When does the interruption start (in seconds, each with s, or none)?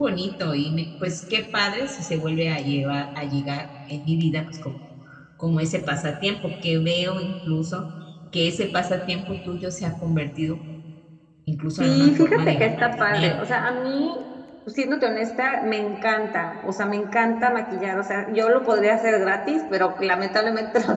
11.8 s